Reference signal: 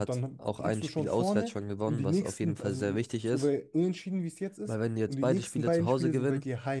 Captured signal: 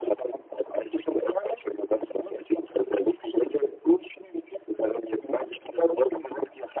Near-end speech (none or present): none